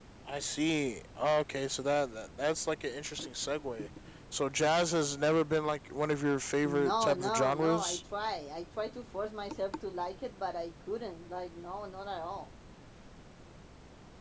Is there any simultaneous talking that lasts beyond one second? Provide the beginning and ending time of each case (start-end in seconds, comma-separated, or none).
6.7-8.0